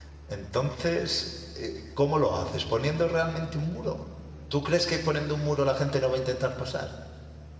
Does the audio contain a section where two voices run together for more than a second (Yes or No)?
No